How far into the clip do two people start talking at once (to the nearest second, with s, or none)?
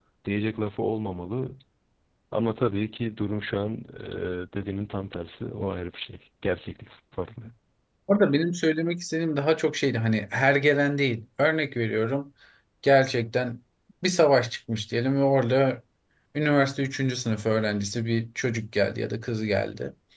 none